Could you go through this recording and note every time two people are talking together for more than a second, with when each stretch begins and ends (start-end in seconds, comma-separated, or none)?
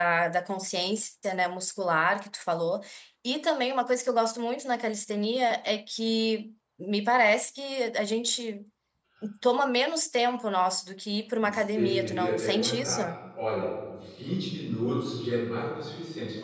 11.4-13.0